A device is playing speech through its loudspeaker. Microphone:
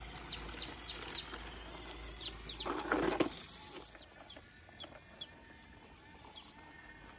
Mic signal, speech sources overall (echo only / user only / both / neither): neither